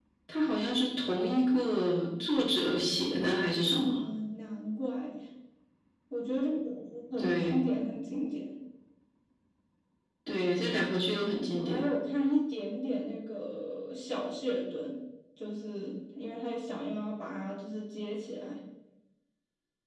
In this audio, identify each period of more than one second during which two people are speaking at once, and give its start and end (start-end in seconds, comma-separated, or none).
none